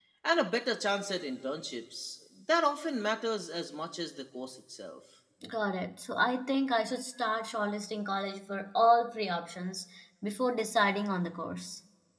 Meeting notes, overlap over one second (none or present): none